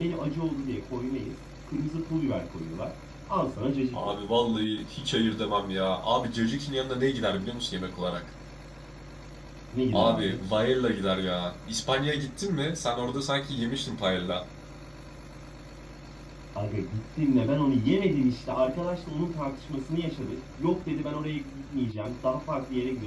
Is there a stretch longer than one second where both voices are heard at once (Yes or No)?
No